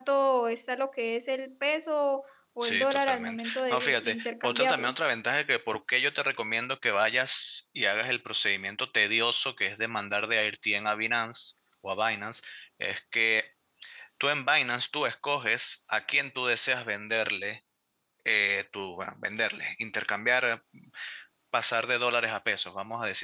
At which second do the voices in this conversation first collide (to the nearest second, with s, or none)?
3 s